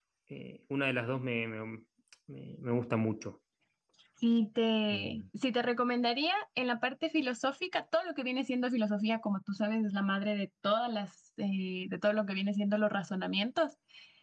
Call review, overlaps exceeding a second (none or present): none